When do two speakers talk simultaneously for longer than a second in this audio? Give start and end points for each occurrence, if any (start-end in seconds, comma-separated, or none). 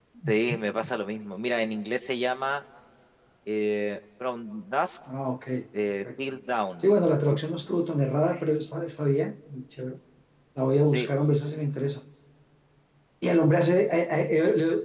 none